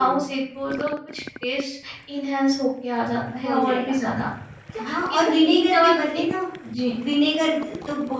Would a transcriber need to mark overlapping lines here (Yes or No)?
Yes